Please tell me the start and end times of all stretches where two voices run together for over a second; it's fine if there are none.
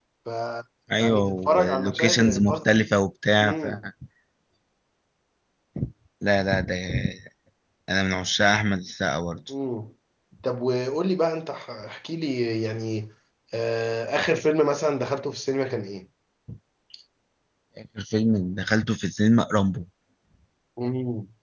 1.0-2.9

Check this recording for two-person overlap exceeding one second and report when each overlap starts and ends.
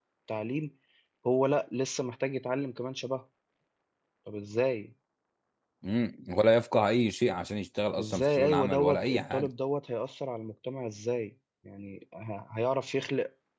8.0-9.5

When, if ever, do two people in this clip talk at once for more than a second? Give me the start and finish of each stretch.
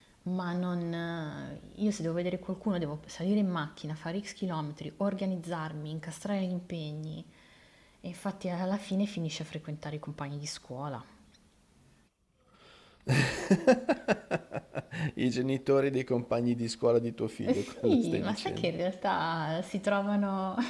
17.4-18.7

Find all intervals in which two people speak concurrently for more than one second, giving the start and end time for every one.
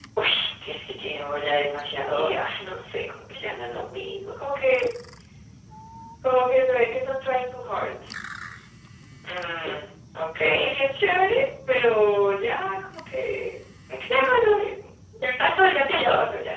none

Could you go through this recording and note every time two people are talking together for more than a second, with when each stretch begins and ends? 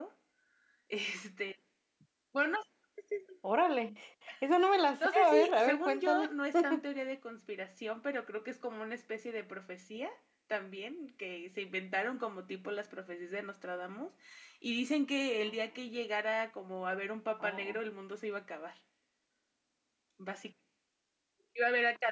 5.0-6.3

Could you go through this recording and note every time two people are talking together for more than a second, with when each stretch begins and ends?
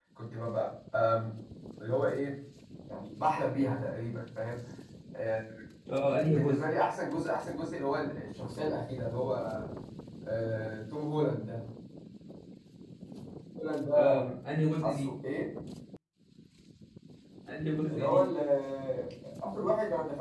none

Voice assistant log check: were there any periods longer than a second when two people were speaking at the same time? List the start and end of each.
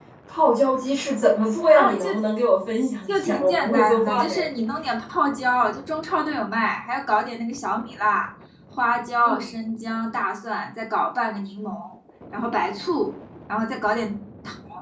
3.1-4.3

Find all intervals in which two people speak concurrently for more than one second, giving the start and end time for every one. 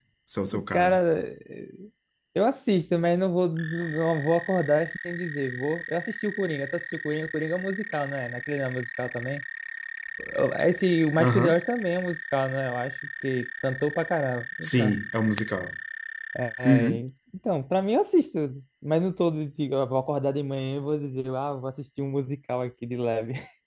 none

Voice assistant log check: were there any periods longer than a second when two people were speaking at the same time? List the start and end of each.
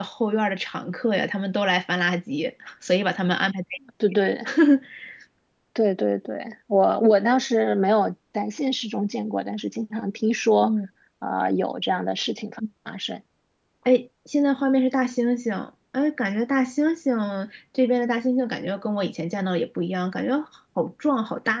none

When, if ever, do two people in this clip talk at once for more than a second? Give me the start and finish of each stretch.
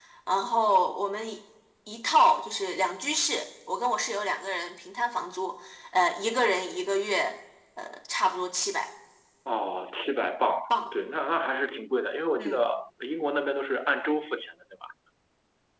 none

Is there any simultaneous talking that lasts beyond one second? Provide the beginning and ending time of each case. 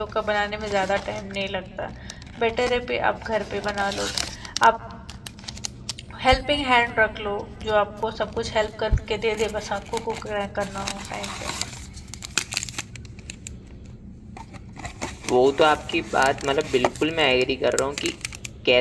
none

